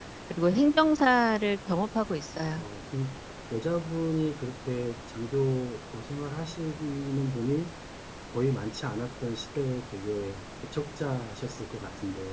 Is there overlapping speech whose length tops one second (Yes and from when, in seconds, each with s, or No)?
No